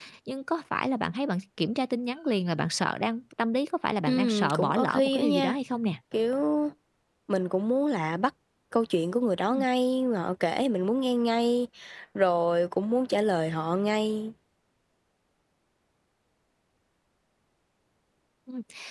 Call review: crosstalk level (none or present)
present